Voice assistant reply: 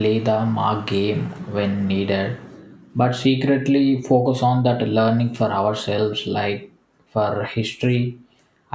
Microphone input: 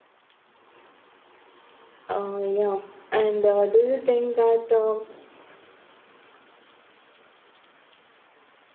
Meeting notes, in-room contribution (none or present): present